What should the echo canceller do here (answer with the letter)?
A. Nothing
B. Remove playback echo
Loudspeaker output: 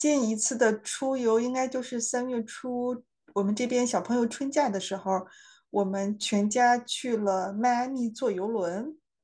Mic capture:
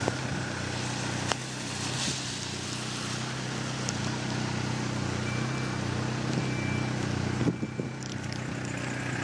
A